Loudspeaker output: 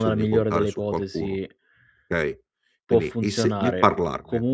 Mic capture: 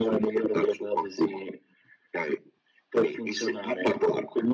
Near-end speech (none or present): none